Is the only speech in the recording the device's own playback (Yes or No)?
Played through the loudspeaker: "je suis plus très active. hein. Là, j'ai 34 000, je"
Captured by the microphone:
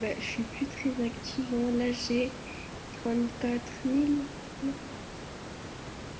Yes